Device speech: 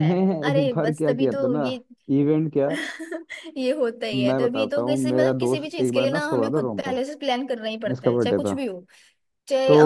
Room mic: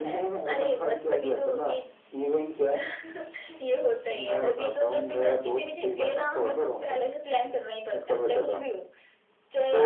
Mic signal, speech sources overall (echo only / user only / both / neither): echo only